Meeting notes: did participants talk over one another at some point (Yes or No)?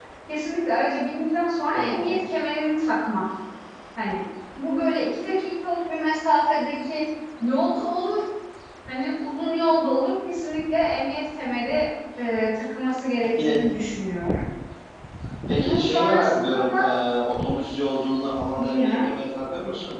Yes